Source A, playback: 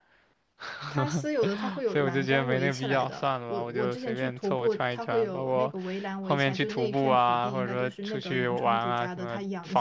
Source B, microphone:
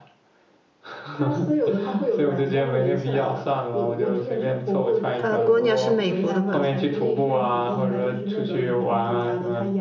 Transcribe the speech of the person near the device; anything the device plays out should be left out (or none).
，Patagonia 是美国的吧？